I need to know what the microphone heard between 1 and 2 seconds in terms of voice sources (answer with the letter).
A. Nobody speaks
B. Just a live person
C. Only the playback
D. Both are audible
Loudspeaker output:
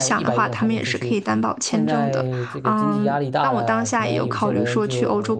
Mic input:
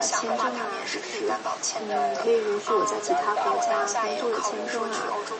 D